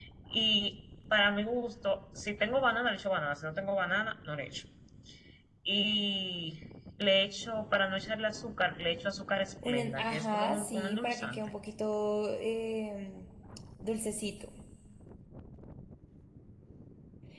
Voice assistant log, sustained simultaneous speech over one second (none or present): present